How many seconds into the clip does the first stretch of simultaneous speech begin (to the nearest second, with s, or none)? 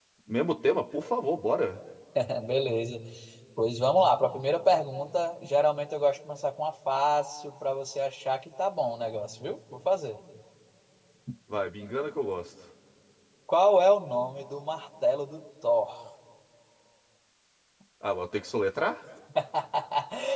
none